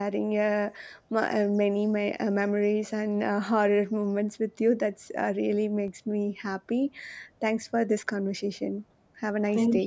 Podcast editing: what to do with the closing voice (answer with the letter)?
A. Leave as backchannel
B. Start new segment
B